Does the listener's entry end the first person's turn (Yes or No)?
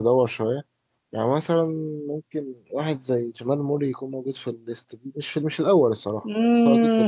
Yes